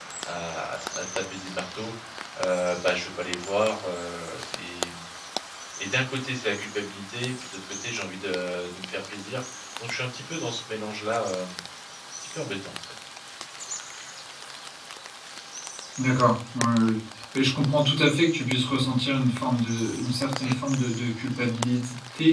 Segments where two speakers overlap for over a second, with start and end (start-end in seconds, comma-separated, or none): none